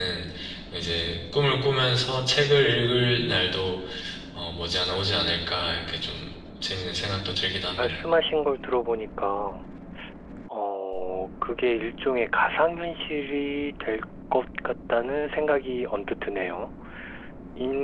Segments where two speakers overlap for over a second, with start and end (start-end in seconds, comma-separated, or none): none